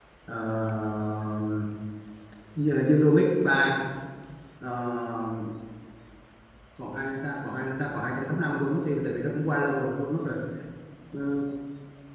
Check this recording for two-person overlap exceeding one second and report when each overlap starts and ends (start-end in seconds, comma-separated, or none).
none